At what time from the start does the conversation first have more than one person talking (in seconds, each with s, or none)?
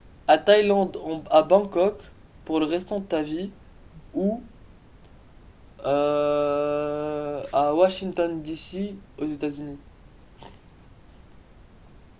none